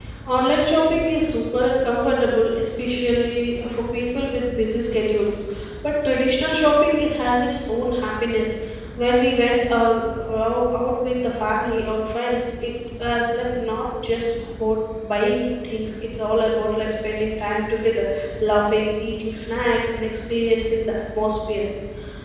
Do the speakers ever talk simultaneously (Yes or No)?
No